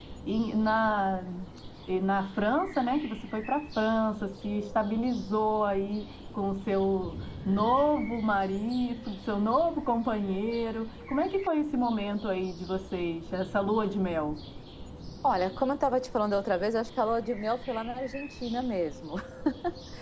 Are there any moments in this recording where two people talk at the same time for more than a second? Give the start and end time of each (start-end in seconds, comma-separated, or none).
none